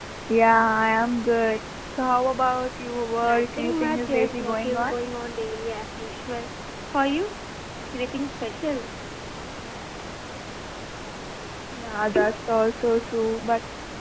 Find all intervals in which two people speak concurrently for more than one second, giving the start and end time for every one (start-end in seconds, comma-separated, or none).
3.2-4.9